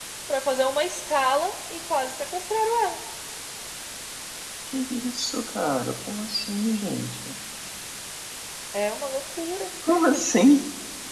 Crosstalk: none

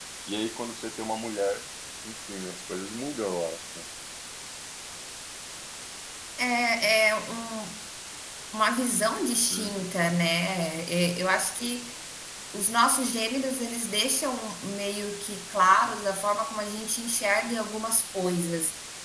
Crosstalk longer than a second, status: none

